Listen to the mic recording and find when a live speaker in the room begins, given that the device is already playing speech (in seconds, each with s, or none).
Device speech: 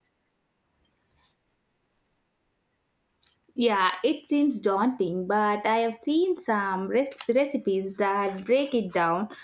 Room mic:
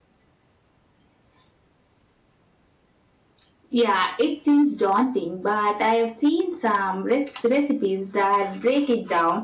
none